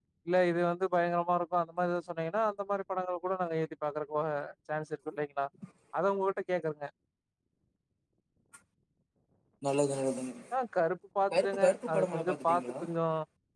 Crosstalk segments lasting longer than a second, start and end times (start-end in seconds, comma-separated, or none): 11.3-12.6